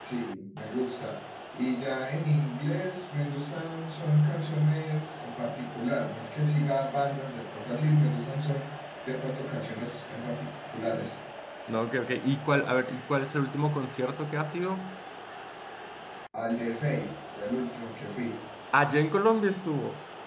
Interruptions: none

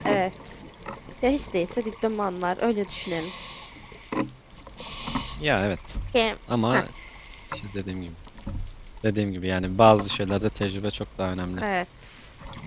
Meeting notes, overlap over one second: none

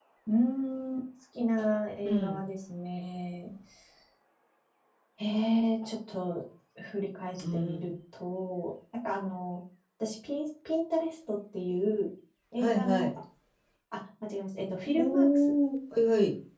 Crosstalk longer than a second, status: none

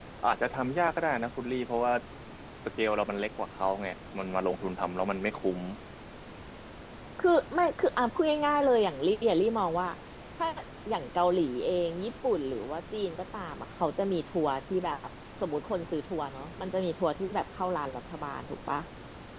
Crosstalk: none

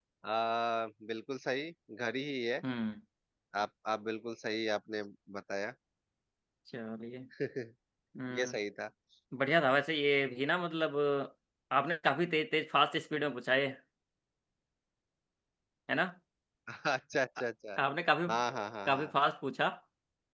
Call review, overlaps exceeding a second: none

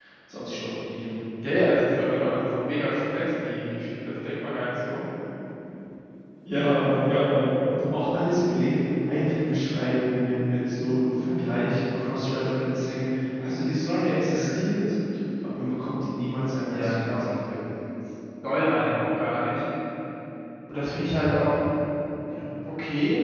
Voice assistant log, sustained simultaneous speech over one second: none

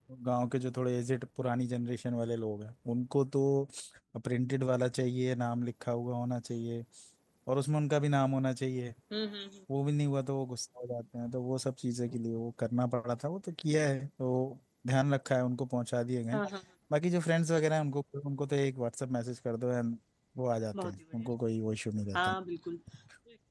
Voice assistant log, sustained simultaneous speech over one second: none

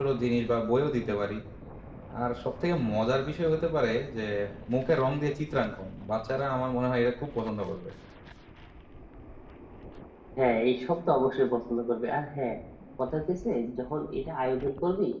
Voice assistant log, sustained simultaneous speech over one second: none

